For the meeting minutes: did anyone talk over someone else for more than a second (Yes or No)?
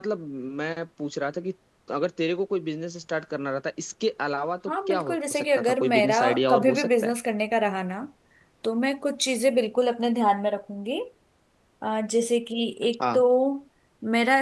Yes